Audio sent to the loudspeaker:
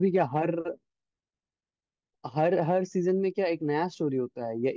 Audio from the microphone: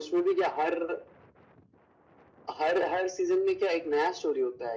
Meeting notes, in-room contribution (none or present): none